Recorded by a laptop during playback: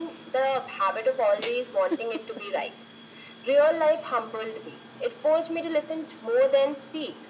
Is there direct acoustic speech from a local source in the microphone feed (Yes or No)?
No